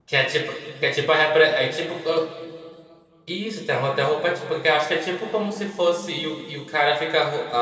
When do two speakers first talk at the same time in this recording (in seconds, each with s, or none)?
none